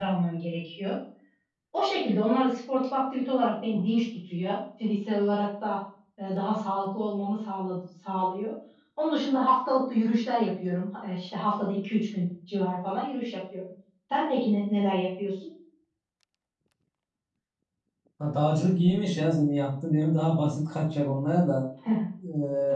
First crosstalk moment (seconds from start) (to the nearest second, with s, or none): none